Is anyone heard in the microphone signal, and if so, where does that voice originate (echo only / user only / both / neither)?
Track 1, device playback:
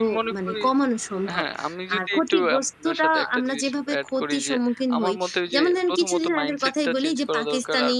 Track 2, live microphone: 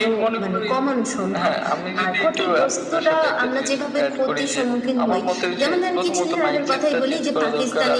echo only